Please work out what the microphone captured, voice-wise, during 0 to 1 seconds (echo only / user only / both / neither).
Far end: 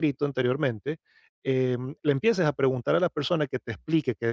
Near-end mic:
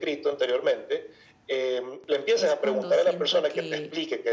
echo only